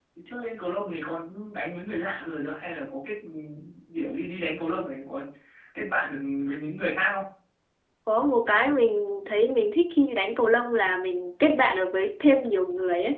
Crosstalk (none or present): none